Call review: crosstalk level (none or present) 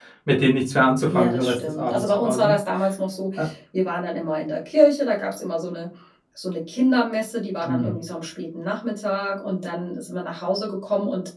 present